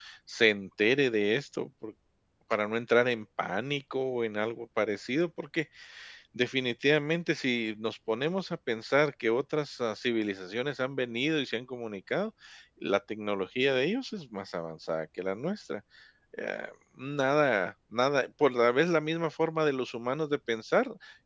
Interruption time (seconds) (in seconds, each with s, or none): none